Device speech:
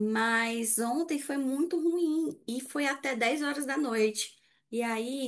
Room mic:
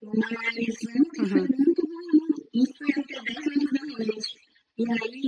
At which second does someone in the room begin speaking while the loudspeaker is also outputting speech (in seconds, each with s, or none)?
1.2 s